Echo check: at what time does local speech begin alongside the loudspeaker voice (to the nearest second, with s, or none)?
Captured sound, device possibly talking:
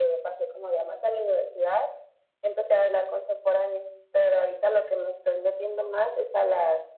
none